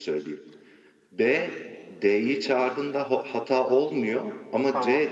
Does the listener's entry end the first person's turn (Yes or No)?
No